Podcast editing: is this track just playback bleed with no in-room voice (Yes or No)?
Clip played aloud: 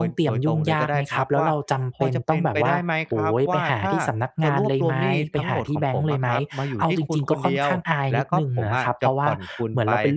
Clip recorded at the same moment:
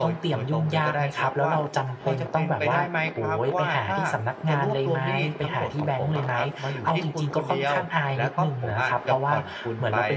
Yes